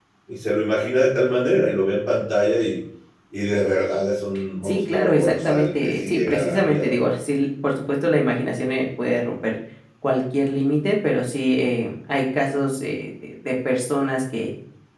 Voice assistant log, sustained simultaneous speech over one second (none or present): present